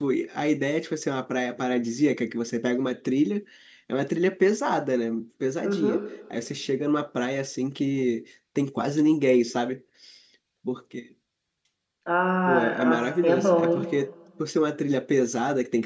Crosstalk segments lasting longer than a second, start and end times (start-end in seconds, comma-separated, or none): 12.5-13.8